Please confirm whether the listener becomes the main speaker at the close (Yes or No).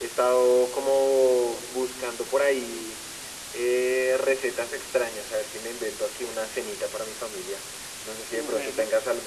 No